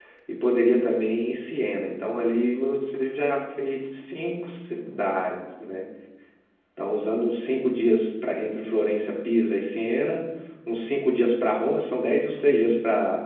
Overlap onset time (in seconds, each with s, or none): none